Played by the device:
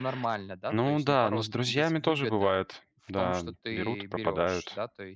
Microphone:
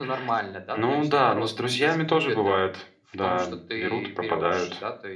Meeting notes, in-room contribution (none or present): none